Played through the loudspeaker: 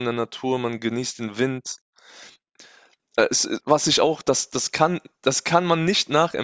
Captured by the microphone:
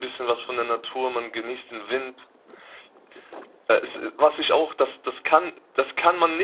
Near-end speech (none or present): none